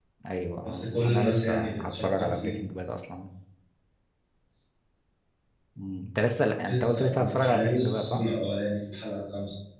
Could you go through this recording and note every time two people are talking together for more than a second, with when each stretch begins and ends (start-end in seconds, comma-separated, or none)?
0.6-2.5, 6.7-8.2